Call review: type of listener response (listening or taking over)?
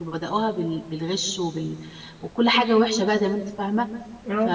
listening